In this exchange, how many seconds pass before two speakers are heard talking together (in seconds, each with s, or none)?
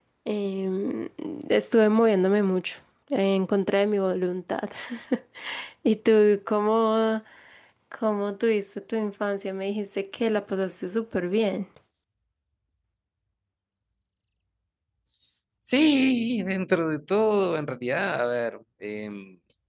none